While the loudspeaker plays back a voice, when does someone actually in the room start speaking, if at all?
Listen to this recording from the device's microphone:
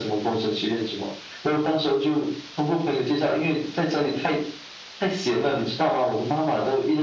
none

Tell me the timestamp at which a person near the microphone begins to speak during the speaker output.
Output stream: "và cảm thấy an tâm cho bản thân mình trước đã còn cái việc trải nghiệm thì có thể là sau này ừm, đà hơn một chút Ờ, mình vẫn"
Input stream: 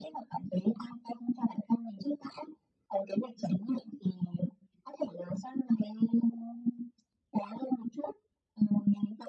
none

